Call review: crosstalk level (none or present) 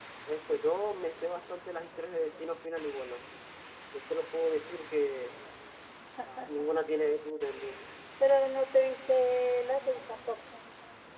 none